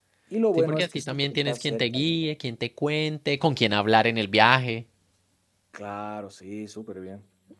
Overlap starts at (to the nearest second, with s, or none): 1 s